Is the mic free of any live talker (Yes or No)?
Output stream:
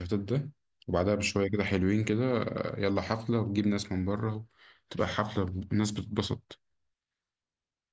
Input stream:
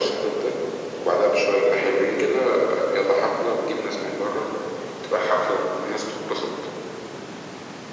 Yes